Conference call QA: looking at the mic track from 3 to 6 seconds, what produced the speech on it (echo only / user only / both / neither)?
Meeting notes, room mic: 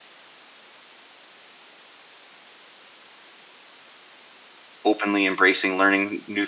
user only